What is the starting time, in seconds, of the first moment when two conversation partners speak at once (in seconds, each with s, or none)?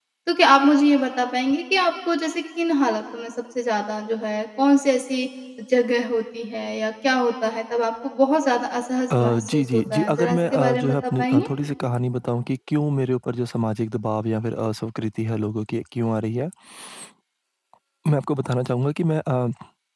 9.1 s